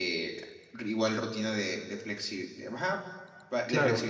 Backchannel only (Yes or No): Yes